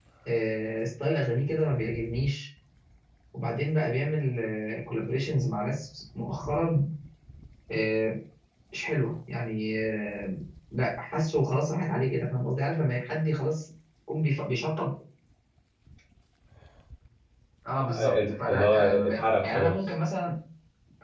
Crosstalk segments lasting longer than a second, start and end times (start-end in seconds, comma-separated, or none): 17.8-19.8